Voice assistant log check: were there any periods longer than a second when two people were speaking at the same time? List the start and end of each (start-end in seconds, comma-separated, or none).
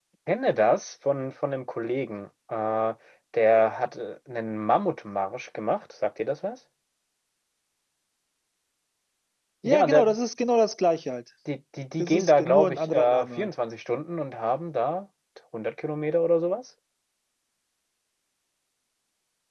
12.0-13.5